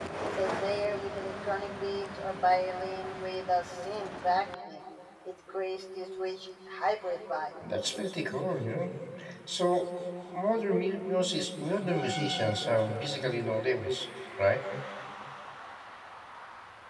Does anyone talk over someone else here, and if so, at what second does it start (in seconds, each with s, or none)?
none